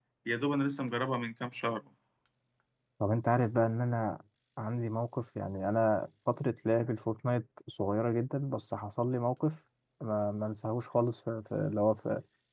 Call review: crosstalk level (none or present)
none